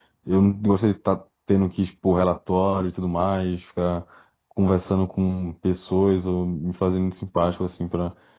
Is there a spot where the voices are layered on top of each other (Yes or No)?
No